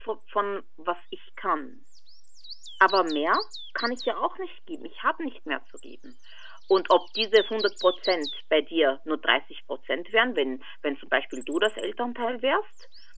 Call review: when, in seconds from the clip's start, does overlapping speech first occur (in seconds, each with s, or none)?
none